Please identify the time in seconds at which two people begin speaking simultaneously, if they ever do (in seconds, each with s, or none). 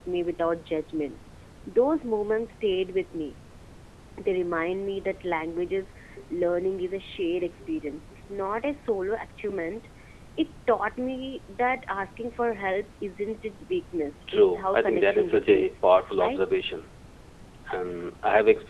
14.3 s